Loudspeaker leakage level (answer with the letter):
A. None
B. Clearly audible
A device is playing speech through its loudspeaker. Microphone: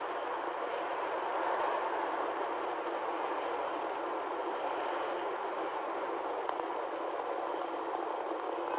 A